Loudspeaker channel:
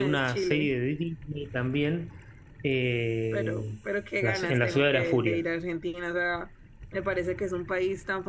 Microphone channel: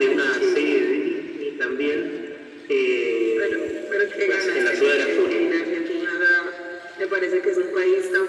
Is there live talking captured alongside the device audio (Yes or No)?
No